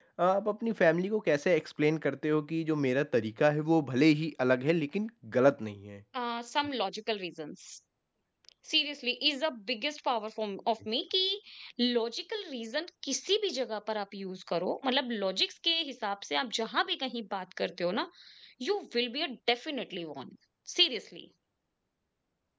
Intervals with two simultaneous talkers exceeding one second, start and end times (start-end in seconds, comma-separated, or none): none